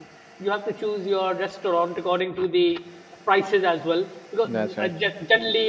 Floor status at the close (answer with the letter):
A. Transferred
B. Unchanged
B